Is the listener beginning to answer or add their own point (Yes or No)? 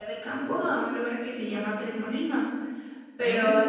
No